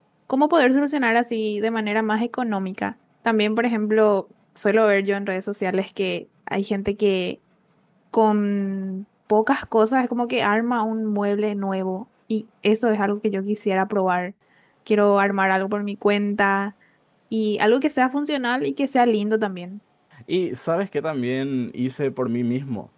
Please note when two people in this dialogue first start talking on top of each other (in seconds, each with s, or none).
none